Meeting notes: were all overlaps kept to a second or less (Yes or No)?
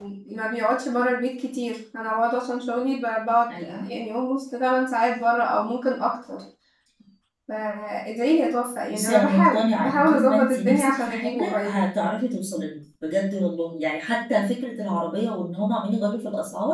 No